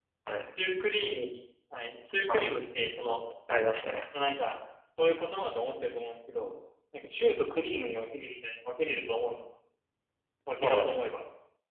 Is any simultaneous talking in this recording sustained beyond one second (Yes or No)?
No